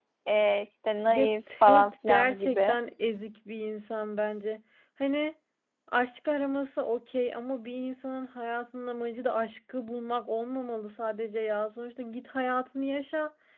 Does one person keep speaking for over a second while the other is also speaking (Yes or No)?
Yes